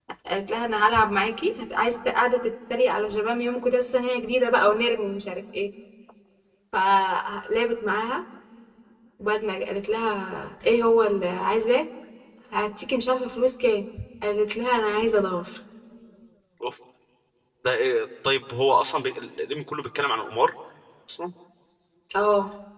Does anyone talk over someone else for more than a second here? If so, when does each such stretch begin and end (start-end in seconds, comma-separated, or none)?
none